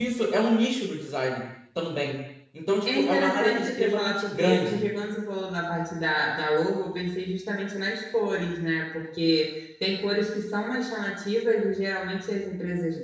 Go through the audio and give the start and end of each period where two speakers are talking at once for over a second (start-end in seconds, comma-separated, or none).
2.9-4.9